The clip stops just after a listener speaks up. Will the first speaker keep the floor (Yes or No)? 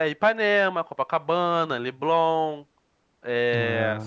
Yes